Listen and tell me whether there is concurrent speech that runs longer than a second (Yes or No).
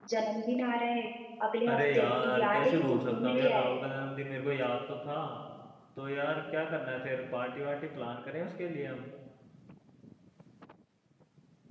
Yes